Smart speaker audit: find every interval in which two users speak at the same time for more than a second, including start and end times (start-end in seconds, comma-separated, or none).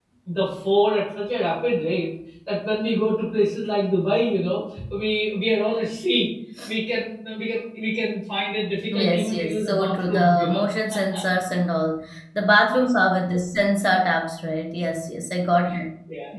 8.9-10.6